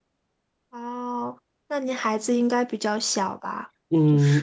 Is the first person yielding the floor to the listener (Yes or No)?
Yes